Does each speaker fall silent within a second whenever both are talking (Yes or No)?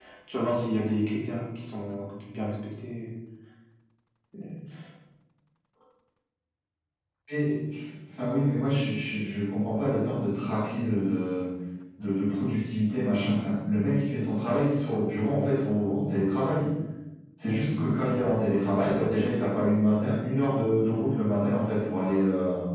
Yes